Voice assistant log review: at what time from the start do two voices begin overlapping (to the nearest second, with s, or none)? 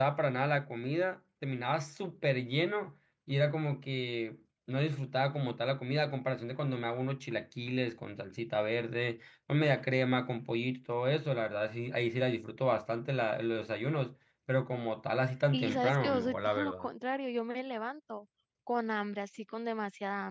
16 s